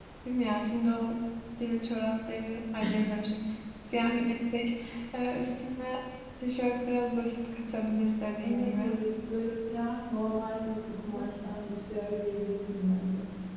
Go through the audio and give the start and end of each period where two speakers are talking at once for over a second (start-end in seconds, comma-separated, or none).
none